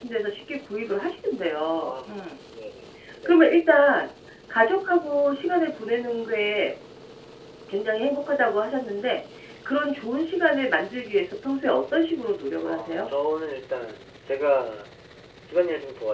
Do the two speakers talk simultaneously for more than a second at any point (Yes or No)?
No